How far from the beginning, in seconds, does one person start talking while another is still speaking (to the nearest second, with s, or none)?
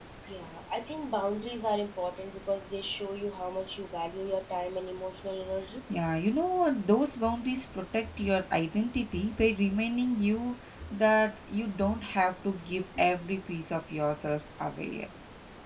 none